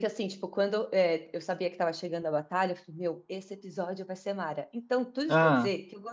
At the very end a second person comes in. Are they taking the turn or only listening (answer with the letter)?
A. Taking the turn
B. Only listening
B